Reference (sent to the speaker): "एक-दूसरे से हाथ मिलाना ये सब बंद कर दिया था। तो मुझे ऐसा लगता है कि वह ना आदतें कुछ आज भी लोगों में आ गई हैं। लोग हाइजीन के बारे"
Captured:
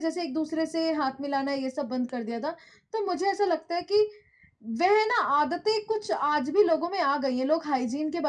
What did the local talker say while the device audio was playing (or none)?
none